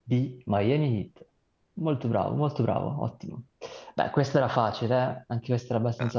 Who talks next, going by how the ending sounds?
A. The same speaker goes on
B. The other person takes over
B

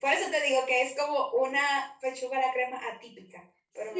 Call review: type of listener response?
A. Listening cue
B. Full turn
B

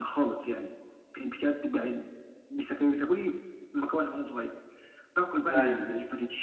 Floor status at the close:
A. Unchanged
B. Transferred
A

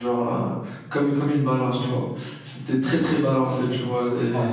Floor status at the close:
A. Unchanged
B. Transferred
A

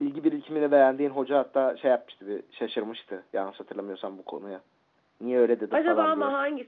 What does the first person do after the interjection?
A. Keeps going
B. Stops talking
B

